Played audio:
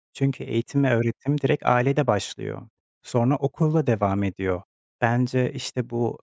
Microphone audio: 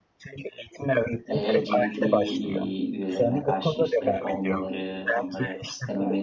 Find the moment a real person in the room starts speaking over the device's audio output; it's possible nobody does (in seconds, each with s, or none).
1.3 s